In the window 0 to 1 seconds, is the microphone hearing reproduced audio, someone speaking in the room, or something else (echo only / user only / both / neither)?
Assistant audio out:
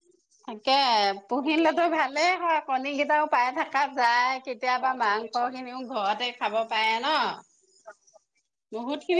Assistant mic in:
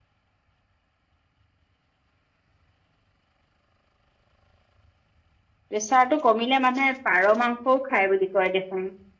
neither